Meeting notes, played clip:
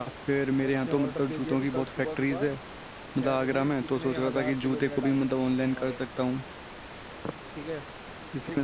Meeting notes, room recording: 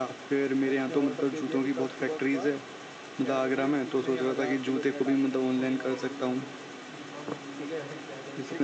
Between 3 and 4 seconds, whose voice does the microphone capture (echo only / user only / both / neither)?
echo only